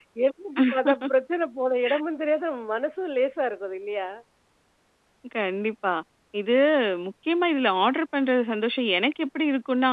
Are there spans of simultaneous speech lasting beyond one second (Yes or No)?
No